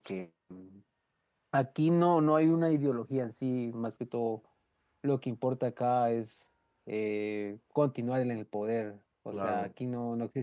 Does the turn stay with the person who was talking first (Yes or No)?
Yes